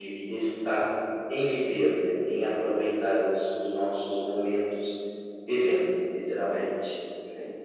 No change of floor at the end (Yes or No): No